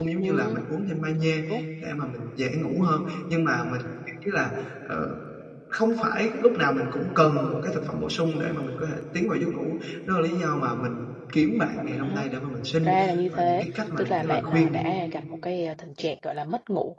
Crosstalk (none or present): present